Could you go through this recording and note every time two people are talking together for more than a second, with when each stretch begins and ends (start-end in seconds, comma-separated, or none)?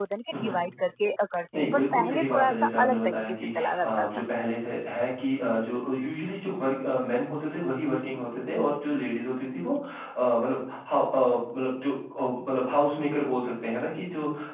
1.6-4.1